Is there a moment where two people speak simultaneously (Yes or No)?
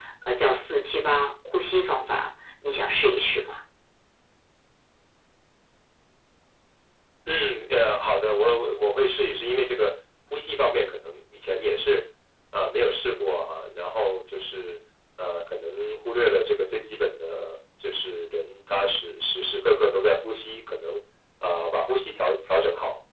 No